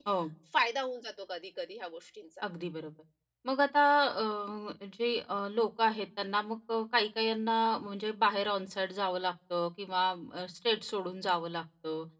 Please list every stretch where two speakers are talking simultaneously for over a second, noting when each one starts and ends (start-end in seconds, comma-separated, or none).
none